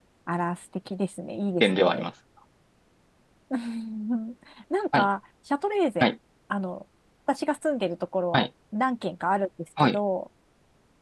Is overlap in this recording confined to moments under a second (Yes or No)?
Yes